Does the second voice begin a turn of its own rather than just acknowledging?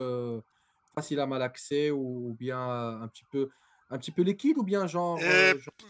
Yes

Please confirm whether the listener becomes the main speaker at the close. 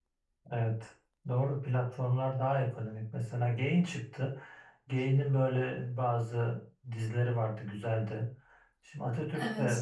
No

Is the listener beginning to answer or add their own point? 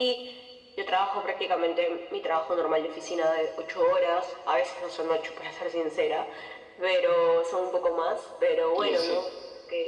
No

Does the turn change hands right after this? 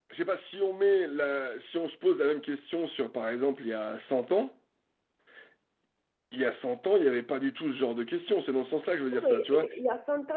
Yes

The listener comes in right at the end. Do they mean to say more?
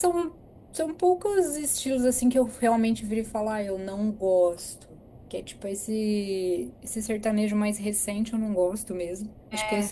No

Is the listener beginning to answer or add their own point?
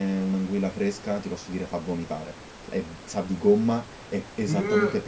No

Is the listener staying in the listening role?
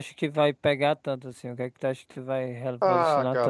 No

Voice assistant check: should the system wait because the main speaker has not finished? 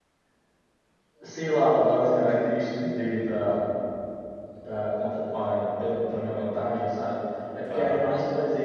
Yes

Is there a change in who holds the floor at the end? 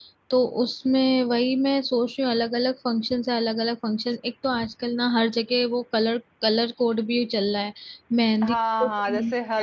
Yes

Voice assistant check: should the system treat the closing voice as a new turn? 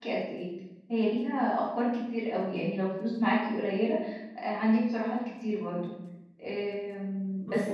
No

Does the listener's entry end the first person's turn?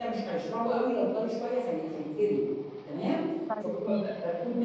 No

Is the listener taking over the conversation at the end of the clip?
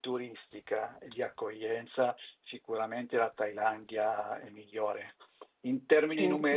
No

